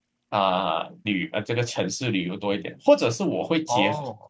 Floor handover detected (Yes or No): No